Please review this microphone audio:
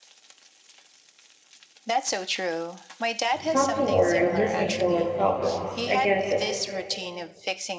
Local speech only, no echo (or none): talking or listening to our problems. I guess